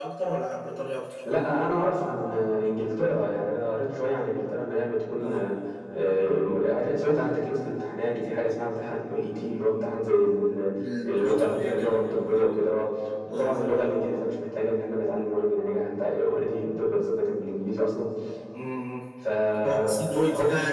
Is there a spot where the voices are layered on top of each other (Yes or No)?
Yes